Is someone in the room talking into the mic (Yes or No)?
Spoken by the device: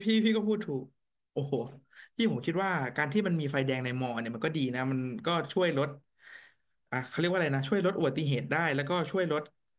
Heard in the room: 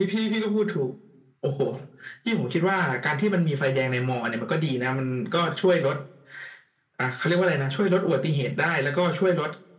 No